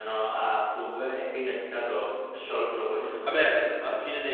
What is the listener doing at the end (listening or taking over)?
taking over